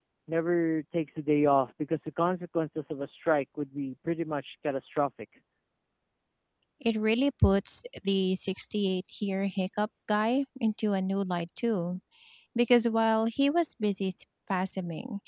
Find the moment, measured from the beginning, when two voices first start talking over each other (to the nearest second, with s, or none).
none